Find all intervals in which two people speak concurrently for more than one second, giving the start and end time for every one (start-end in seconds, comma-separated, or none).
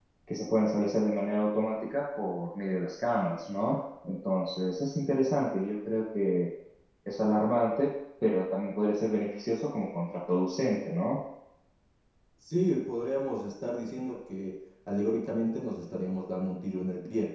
none